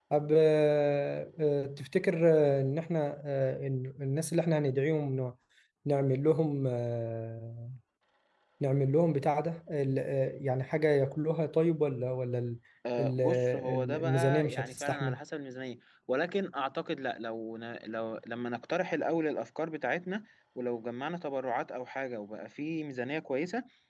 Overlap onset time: 13.0 s

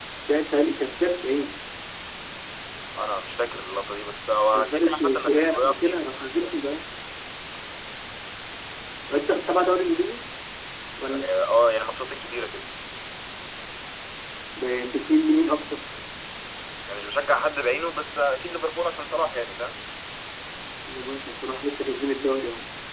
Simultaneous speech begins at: 4.5 s

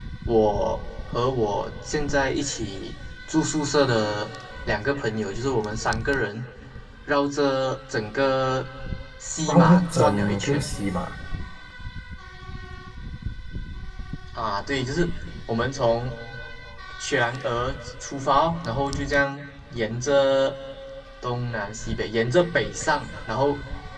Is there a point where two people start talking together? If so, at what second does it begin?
9.4 s

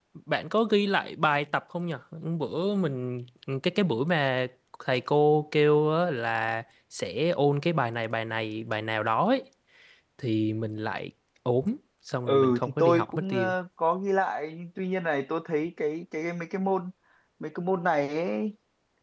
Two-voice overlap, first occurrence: 12.2 s

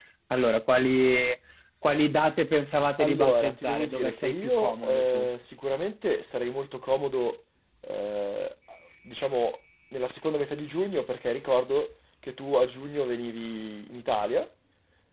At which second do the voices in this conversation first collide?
3.0 s

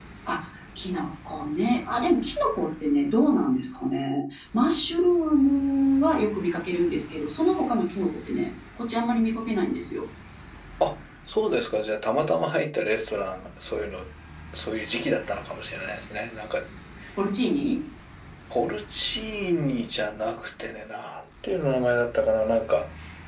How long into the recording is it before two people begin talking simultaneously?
none

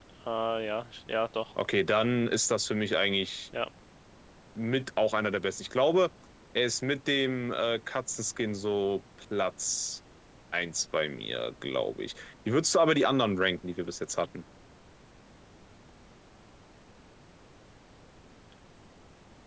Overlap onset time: none

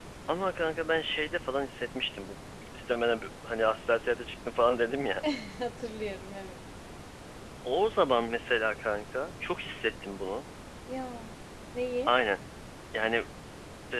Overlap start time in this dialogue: none

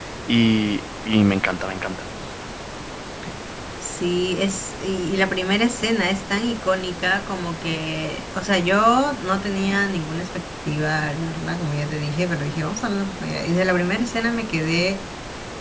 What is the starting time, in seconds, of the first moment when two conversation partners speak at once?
none

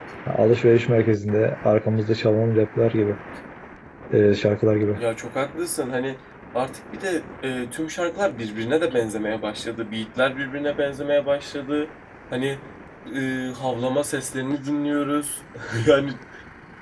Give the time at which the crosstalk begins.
none

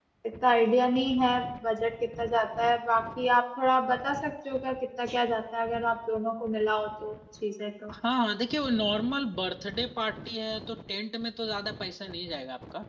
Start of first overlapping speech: none

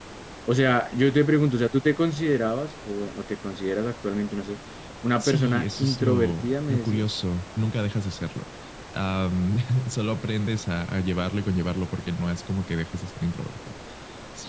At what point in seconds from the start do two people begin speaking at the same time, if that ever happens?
5.2 s

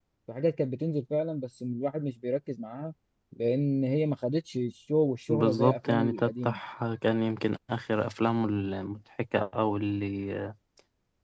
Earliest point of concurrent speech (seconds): 5.3 s

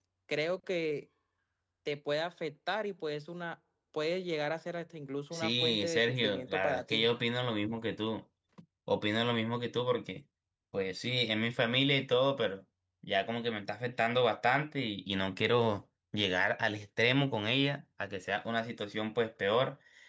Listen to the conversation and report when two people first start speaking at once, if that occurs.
5.3 s

